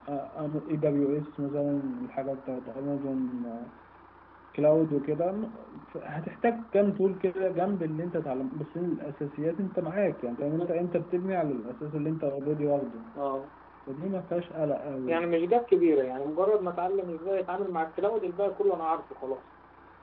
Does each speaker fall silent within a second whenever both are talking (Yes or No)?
Yes